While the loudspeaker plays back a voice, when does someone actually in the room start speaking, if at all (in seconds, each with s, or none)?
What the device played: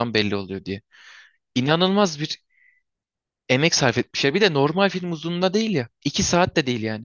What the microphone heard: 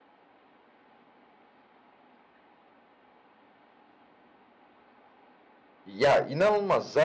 5.8 s